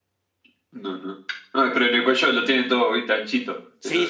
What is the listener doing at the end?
taking over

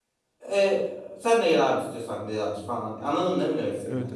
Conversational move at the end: taking over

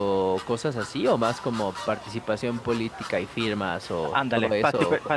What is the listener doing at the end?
taking over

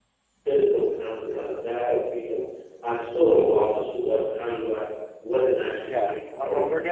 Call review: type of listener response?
taking over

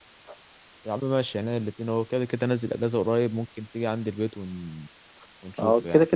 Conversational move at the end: taking over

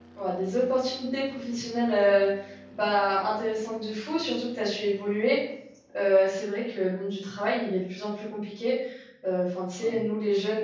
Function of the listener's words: listening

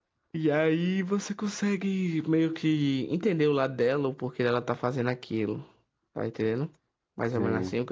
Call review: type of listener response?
taking over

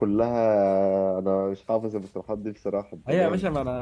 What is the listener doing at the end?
taking over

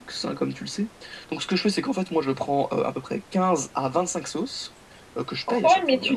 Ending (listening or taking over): taking over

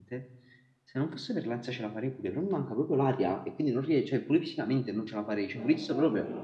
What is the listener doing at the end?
taking over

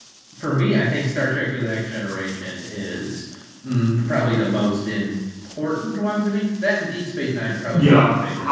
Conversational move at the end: taking over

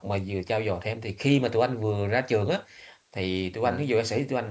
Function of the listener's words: listening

